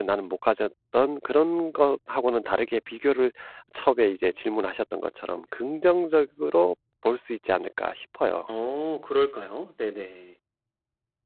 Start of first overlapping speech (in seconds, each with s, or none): none